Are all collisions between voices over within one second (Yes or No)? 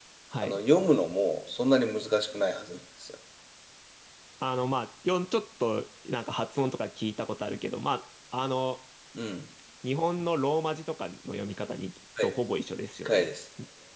Yes